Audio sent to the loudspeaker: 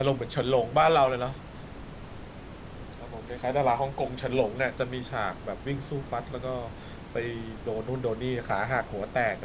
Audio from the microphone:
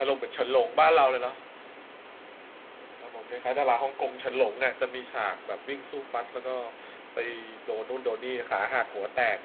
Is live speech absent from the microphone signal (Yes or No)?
Yes